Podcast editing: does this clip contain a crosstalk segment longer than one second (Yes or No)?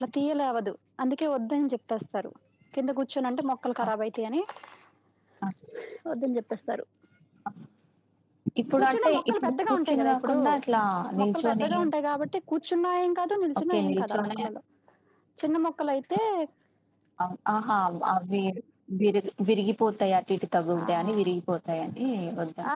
Yes